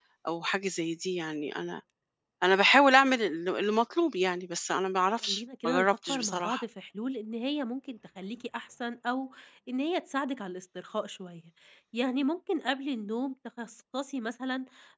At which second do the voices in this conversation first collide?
5.2 s

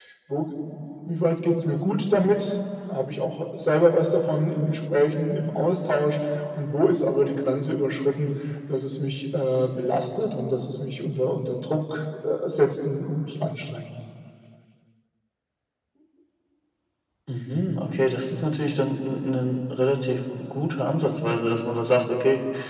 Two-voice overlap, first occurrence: none

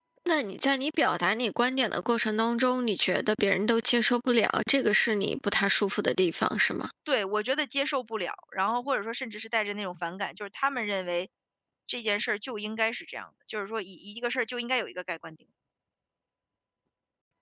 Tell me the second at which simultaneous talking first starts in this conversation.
none

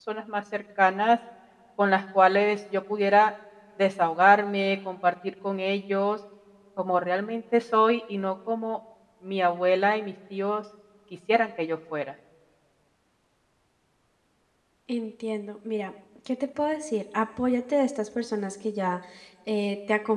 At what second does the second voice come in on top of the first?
none

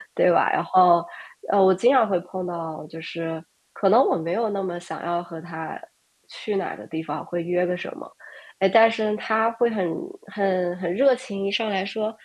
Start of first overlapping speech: none

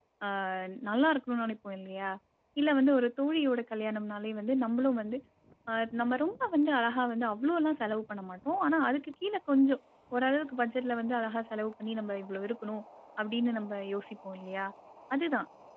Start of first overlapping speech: none

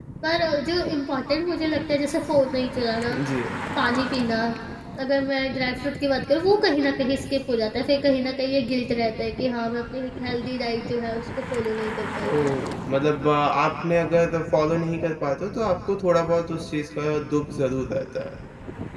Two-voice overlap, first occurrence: none

